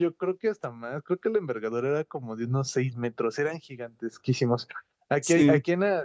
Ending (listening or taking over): listening